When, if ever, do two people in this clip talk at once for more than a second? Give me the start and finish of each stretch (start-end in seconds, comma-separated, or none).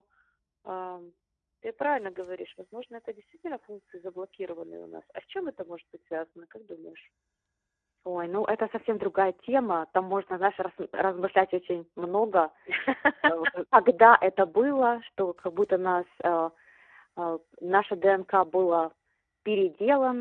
none